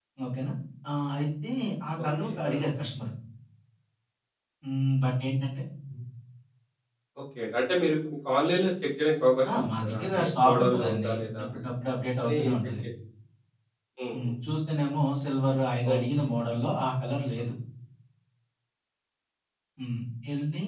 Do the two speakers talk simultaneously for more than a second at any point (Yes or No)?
Yes